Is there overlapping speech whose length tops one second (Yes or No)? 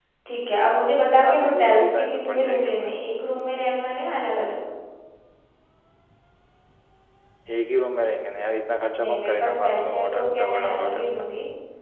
Yes